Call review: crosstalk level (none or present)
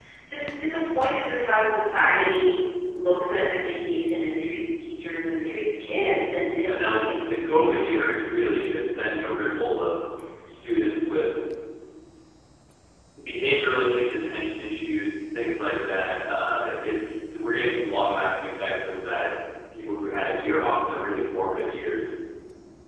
present